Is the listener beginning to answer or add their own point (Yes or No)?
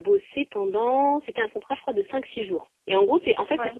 No